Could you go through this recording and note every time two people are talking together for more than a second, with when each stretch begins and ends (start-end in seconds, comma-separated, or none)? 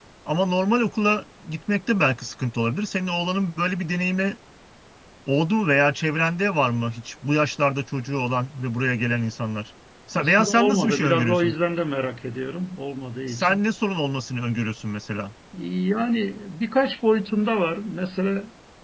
10.2-11.5